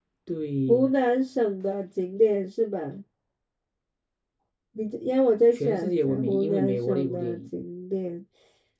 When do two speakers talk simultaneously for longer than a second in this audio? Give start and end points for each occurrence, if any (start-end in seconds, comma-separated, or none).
5.5-7.4